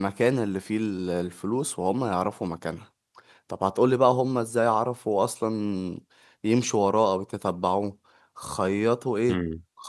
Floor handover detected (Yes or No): No